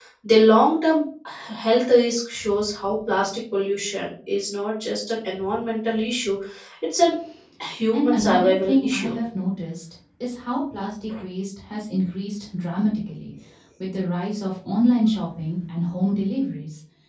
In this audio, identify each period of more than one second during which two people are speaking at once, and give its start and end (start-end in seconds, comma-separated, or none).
7.9-9.2